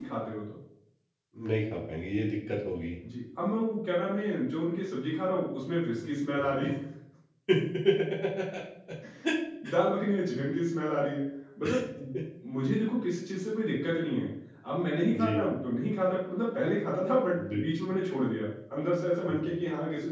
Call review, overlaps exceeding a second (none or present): none